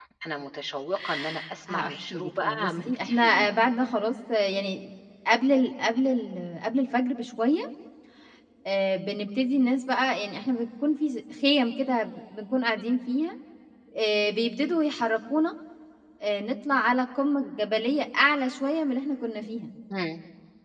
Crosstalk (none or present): present